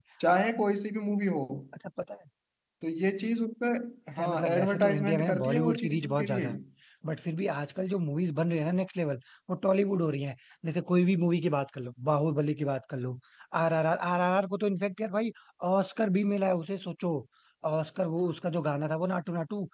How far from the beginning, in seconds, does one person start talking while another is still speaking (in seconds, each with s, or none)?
4.1 s